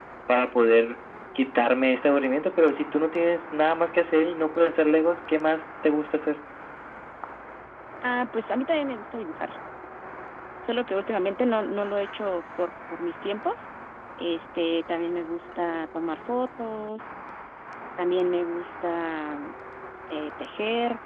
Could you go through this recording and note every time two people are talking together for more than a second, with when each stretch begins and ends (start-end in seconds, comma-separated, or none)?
none